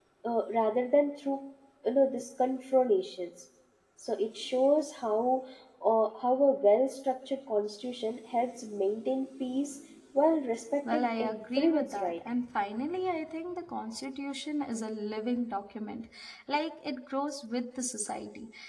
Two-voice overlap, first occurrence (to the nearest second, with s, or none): 11 s